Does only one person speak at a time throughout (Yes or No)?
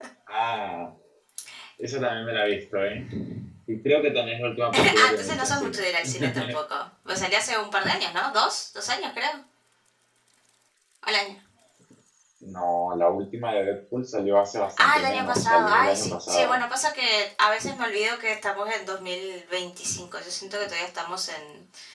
No